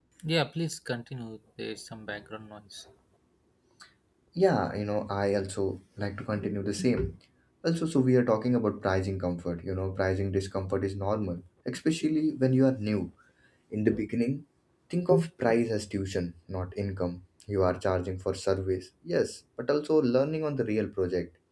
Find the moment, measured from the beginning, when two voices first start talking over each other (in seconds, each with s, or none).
none